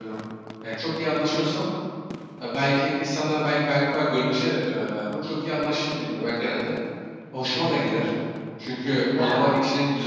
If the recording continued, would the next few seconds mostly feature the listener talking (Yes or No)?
No